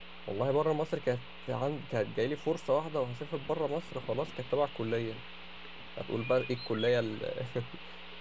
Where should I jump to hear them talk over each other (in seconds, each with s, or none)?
none